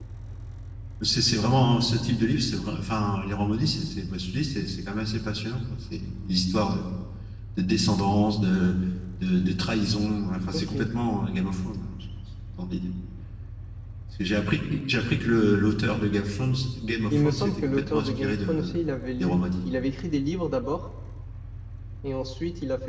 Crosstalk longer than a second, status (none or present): present